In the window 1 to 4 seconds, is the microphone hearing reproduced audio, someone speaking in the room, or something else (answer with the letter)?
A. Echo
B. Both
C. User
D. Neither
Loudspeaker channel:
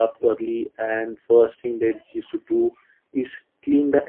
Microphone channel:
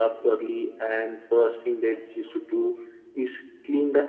A